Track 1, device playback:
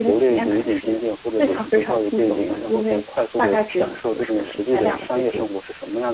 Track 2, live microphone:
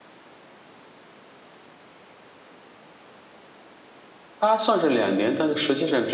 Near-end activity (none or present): present